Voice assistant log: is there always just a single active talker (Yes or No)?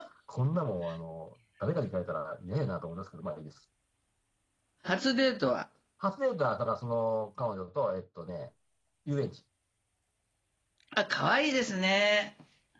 Yes